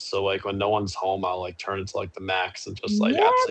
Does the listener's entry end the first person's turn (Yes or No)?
Yes